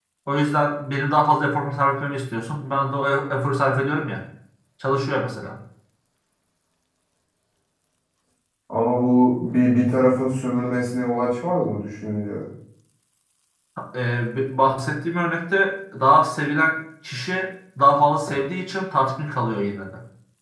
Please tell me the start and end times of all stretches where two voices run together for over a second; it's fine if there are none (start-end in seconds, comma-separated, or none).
none